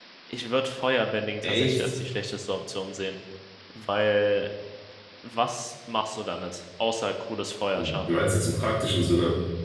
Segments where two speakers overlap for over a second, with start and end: none

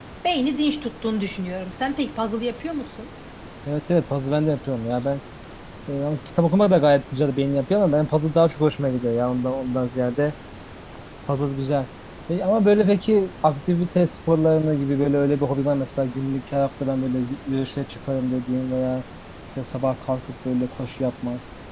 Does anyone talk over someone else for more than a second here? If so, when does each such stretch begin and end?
none

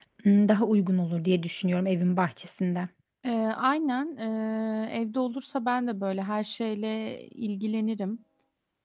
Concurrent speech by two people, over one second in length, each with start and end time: none

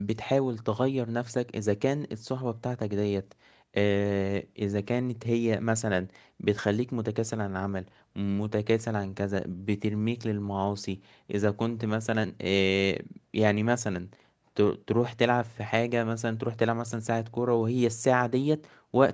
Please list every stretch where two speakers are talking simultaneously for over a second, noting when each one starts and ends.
none

